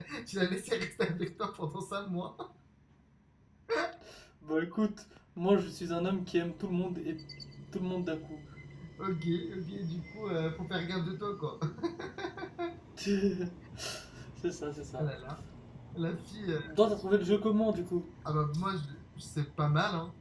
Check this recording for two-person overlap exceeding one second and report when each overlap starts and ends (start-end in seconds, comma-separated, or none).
none